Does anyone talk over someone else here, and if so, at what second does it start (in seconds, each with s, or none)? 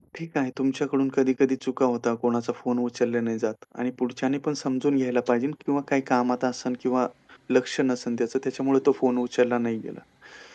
none